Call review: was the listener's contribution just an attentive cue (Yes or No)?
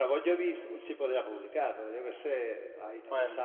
Yes